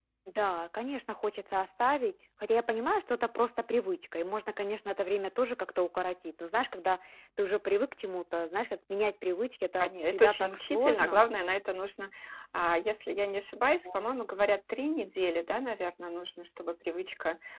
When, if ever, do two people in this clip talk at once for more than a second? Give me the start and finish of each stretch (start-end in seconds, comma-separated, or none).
9.8-11.2